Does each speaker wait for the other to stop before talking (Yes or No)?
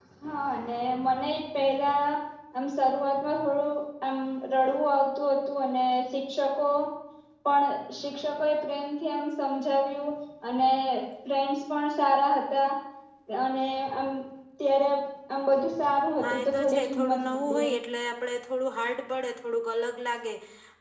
No